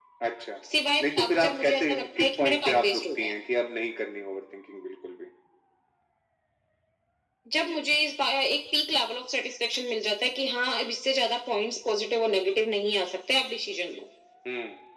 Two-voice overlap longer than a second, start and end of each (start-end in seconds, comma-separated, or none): 1.0-3.3